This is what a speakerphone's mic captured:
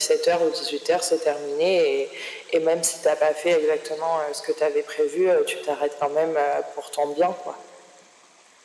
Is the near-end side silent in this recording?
Yes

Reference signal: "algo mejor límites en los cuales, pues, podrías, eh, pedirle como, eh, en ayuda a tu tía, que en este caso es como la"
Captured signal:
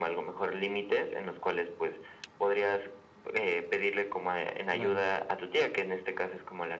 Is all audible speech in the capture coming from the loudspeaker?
No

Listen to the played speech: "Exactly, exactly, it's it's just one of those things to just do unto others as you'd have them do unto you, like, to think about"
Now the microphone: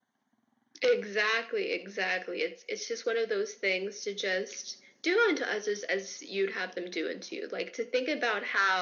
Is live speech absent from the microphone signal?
Yes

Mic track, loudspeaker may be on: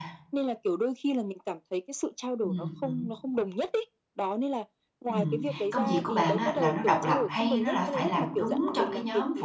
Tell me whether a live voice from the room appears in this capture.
Yes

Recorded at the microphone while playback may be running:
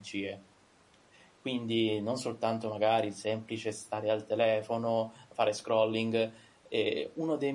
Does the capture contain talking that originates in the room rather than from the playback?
Yes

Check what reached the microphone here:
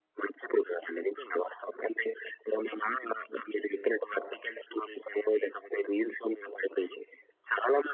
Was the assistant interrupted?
No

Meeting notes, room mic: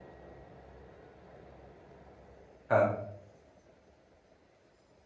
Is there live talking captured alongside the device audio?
Yes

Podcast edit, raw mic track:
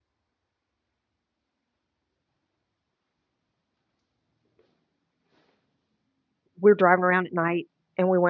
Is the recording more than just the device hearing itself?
Yes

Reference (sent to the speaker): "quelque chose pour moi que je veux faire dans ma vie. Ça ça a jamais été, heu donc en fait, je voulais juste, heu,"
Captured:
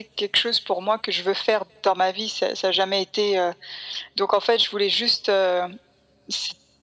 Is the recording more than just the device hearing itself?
No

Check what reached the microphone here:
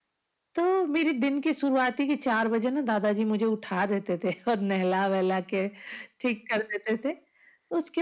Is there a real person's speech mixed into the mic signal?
No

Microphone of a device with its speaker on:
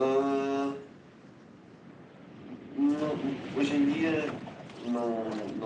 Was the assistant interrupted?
No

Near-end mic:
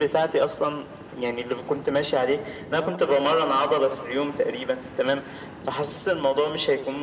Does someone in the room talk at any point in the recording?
No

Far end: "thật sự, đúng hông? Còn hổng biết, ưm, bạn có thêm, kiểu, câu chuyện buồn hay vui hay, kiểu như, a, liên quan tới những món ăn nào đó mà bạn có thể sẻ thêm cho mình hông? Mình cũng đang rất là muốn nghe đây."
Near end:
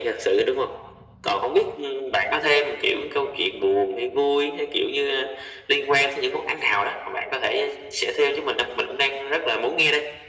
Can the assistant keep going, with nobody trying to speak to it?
Yes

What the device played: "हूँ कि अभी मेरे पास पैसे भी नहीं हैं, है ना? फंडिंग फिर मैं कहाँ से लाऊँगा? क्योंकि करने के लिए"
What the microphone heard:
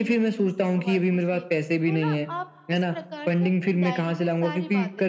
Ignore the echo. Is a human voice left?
Yes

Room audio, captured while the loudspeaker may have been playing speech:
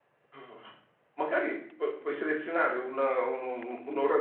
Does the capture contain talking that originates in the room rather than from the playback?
Yes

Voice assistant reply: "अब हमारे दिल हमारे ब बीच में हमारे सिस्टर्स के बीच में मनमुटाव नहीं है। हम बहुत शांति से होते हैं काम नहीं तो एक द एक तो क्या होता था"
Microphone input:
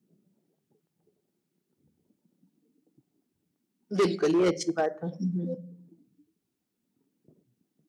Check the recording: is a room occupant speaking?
Yes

